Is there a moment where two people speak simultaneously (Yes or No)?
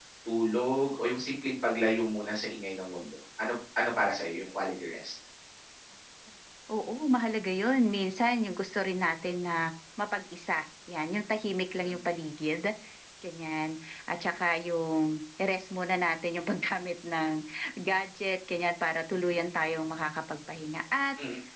No